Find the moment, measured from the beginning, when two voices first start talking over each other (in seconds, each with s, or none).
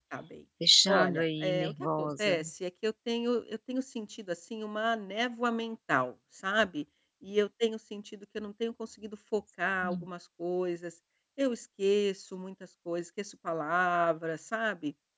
0.9 s